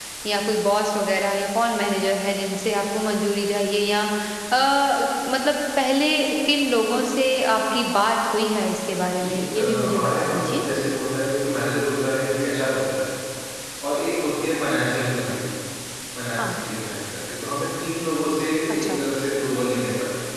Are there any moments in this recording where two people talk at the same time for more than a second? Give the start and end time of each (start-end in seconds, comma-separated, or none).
9.1-10.6